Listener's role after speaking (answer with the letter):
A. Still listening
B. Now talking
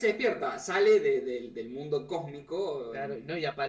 B